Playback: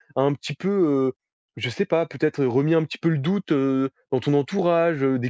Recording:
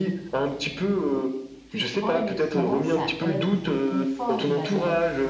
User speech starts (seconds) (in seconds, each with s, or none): 1.7 s